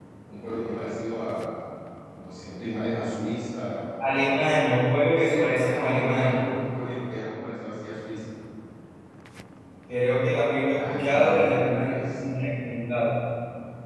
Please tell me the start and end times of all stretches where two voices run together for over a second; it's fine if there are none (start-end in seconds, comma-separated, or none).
5.2-6.5, 10.7-12.2